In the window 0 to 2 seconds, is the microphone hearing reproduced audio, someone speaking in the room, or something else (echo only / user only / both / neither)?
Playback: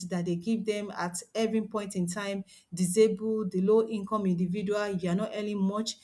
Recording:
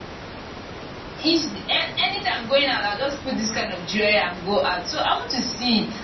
user only